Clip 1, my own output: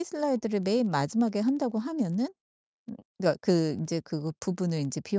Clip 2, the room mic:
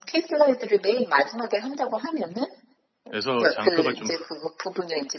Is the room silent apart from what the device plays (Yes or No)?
No